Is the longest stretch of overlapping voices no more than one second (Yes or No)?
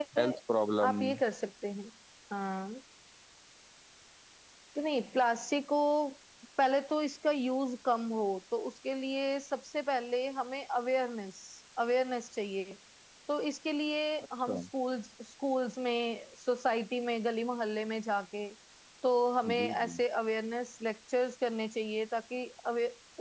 Yes